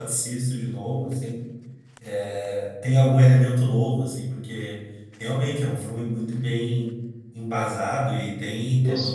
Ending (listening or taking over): listening